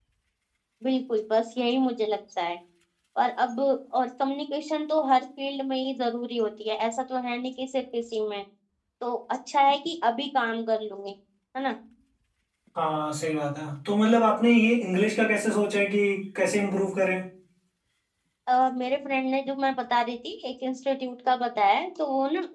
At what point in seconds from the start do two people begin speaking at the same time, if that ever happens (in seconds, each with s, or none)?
none